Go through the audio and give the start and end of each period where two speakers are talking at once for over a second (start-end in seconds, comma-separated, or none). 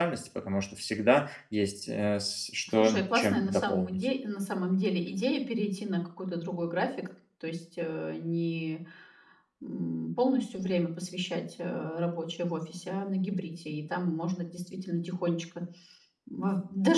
2.8-4.1